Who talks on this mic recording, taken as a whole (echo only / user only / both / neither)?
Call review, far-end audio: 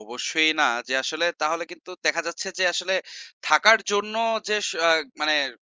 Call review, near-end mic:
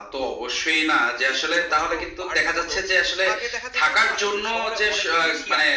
both